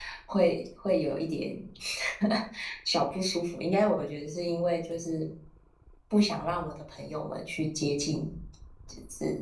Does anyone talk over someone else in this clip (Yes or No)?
No